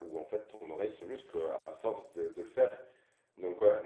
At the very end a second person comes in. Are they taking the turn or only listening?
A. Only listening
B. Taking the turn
A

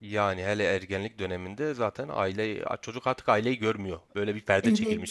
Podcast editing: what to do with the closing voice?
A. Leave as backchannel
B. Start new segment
B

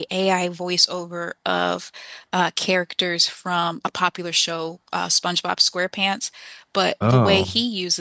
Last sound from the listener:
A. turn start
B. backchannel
B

